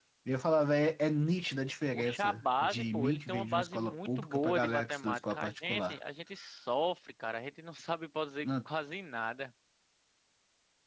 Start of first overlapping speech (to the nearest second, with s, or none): 2 s